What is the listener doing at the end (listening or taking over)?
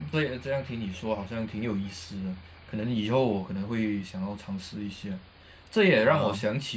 listening